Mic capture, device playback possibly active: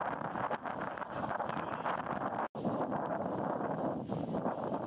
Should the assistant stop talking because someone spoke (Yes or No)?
No